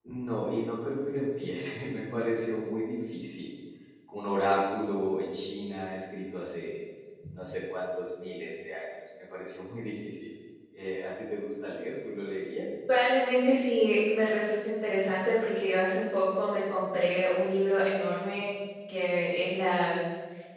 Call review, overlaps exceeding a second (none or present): none